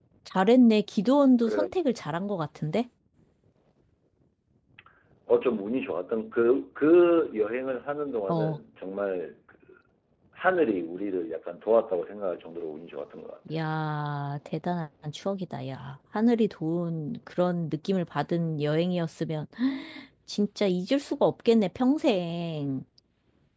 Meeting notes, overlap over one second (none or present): none